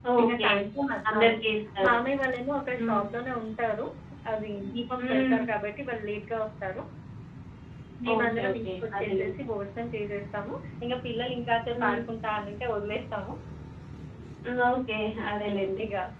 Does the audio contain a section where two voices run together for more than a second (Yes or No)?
Yes